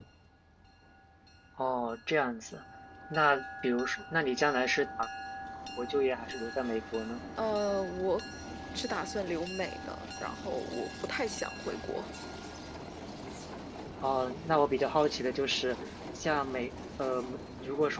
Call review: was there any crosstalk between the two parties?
No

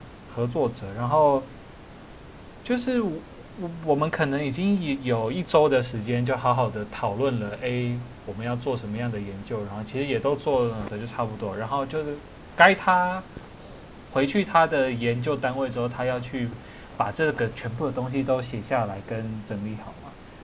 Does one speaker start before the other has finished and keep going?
No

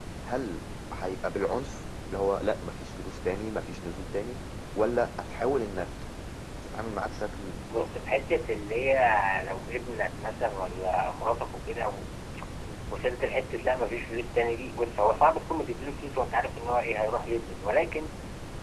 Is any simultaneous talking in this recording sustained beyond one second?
No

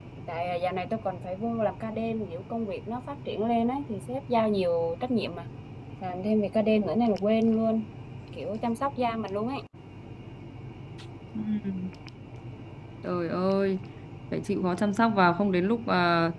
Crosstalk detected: No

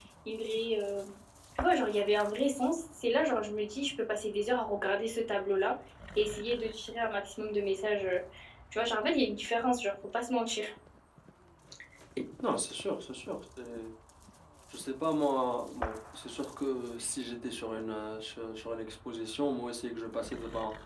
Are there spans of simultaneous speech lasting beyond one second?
No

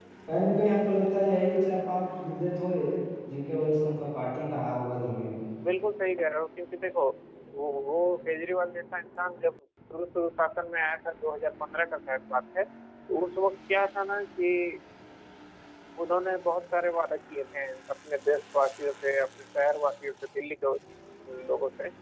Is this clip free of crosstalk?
Yes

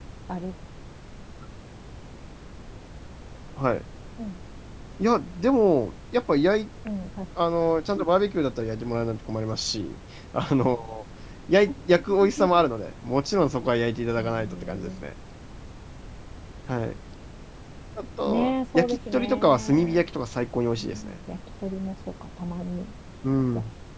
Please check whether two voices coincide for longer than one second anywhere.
Yes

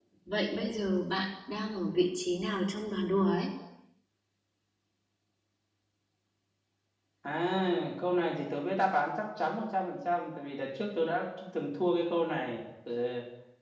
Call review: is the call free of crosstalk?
Yes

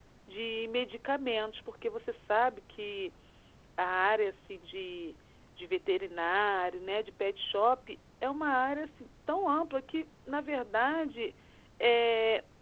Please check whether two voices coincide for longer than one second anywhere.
No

